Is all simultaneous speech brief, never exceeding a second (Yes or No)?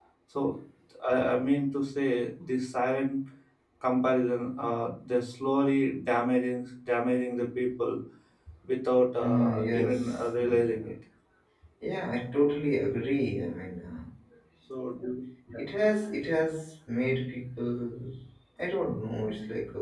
No